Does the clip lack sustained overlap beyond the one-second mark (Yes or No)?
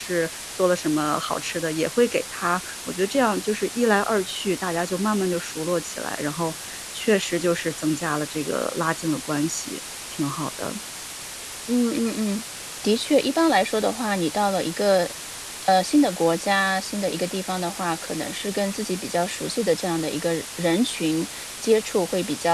Yes